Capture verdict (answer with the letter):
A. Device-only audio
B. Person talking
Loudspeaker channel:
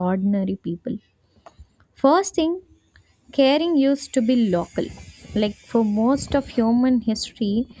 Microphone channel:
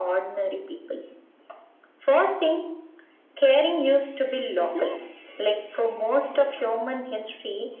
B